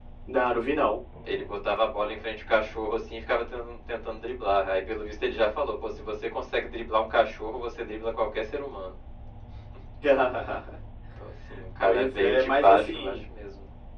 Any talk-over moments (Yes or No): Yes